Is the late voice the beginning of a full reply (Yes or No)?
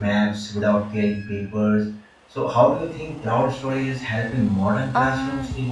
Yes